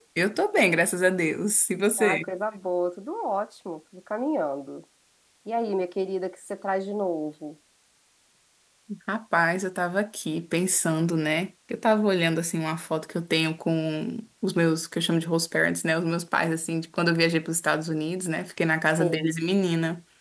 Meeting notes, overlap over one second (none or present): none